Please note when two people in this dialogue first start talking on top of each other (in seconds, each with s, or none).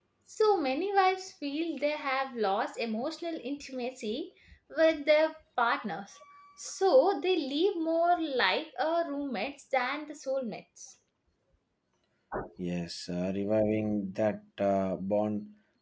none